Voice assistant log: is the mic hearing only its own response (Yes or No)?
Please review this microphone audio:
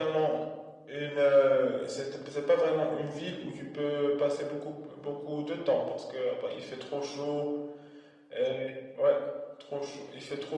Yes